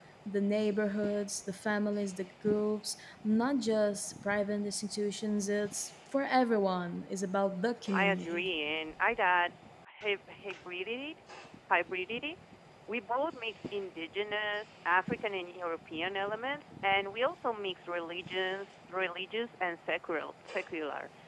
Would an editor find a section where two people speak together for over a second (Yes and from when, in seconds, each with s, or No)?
No